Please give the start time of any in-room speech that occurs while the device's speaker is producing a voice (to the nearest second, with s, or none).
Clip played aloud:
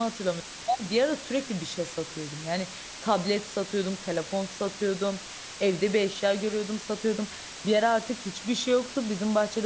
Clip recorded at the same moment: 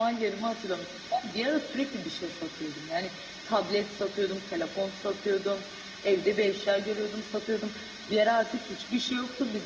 none